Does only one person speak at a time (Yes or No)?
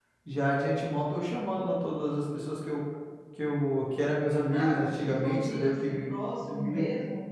No